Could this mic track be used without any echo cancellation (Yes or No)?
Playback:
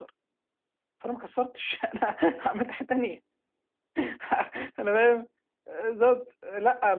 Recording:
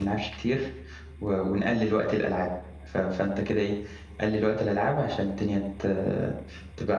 Yes